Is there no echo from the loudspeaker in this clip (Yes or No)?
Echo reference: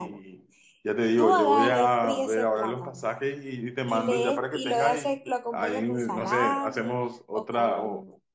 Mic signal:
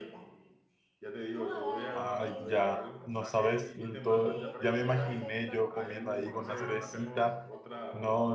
No